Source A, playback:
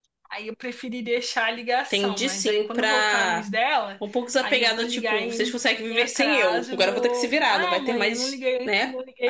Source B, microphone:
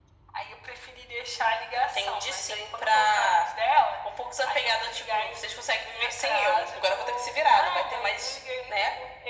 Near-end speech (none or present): none